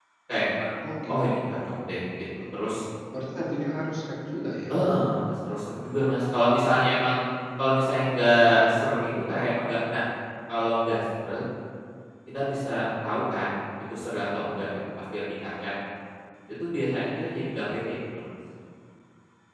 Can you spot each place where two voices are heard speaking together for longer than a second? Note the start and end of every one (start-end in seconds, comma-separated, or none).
none